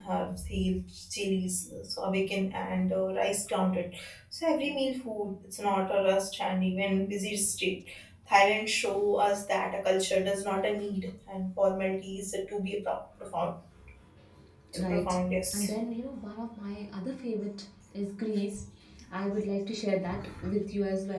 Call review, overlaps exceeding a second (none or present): none